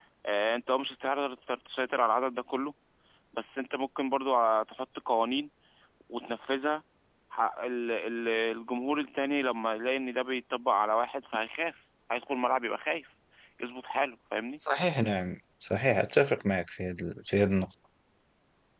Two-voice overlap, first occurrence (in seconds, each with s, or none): none